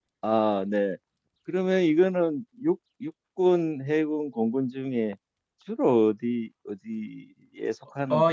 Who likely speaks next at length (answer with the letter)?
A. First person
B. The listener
B